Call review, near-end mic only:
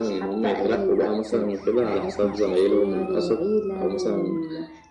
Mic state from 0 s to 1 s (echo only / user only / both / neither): echo only